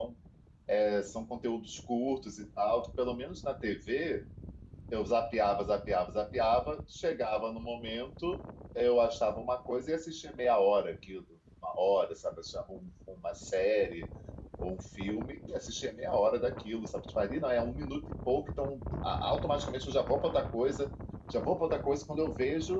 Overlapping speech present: No

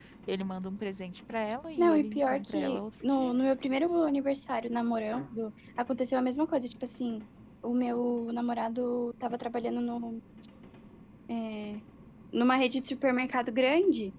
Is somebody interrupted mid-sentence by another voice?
Yes, from 1.8 s

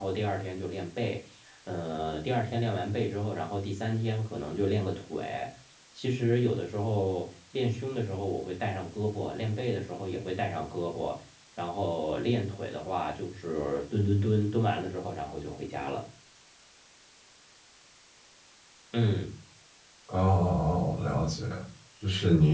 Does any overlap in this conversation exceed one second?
No

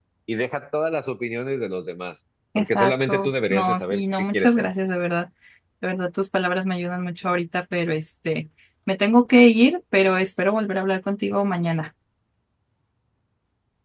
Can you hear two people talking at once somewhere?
Yes, from 2.6 s

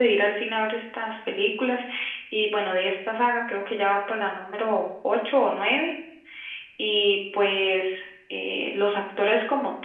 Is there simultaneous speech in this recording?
No

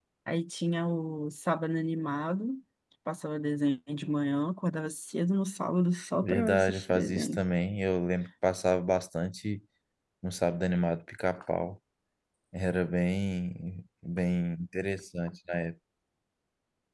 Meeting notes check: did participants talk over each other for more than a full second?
Yes, from 6.2 s

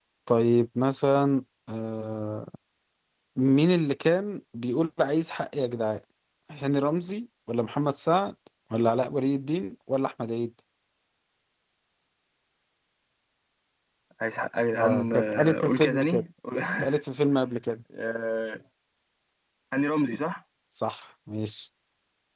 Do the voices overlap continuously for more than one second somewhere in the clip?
Yes, from 14.8 s

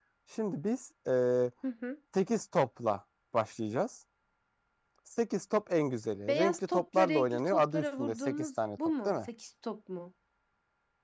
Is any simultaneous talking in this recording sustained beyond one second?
Yes, from 6.3 s

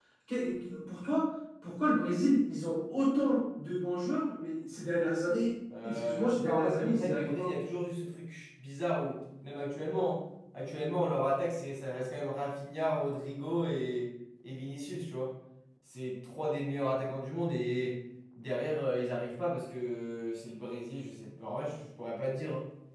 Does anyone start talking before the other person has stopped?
Yes, from 5.7 s

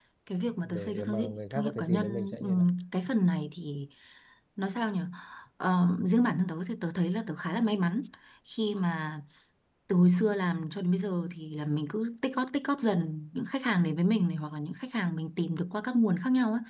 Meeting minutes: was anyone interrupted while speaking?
Yes, from 0.6 s

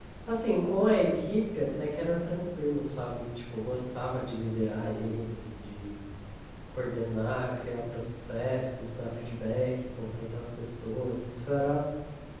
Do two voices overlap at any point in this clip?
No

